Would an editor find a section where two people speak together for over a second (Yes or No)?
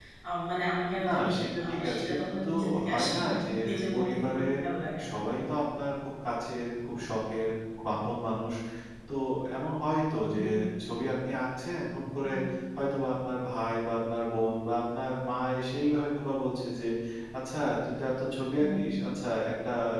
Yes